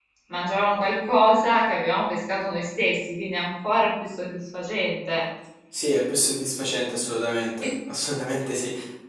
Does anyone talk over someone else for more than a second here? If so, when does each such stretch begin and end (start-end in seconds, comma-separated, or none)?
none